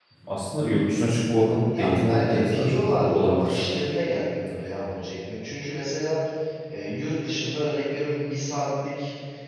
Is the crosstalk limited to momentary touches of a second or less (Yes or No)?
No